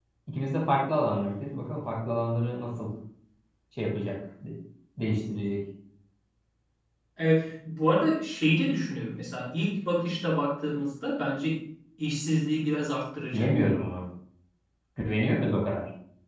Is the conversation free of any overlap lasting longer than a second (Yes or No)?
Yes